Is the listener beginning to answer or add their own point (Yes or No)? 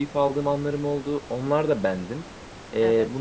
No